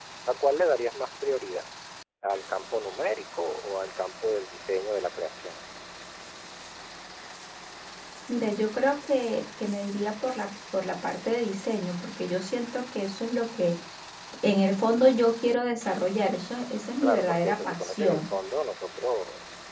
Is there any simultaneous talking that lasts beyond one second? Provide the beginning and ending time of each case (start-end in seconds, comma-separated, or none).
17.0-18.2